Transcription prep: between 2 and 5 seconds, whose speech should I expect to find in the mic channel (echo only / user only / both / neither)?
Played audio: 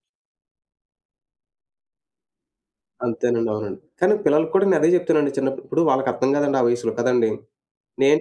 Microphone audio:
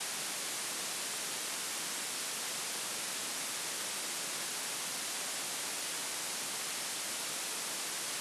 neither